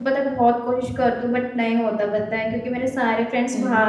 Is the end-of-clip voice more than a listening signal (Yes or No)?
No